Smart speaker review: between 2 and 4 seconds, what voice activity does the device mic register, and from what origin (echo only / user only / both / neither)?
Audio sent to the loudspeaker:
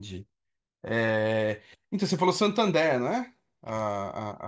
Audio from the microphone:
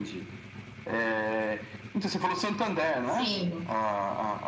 both